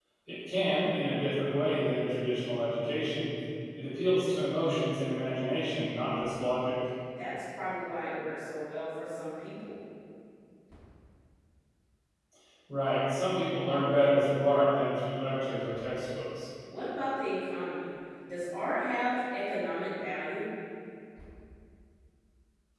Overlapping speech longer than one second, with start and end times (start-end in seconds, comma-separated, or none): none